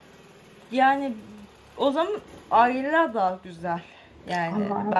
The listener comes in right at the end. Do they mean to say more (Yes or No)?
Yes